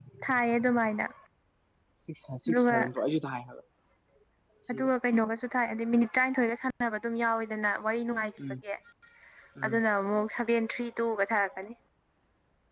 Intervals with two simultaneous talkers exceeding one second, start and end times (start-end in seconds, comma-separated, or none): none